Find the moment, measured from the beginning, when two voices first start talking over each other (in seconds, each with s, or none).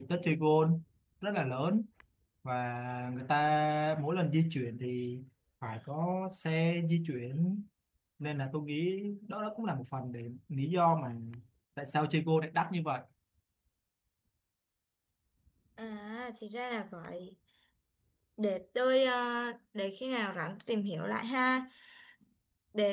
none